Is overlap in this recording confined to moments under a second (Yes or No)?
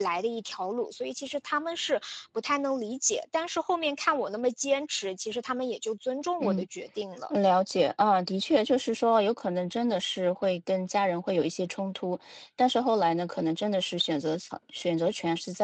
Yes